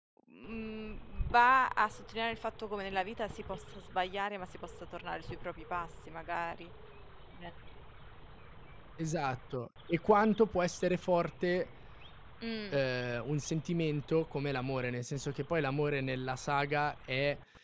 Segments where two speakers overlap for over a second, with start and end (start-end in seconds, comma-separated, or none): none